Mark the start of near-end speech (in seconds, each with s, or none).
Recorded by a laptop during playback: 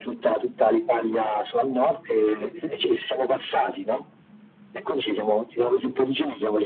none